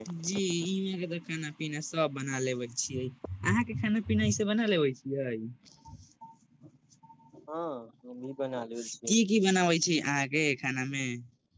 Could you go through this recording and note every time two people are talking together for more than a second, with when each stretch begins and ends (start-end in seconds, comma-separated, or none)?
none